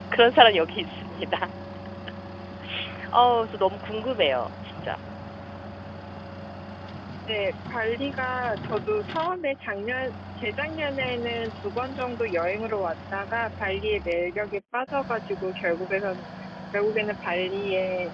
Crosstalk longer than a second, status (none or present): none